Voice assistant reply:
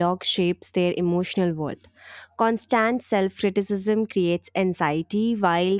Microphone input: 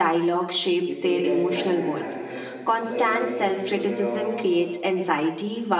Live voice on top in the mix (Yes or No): No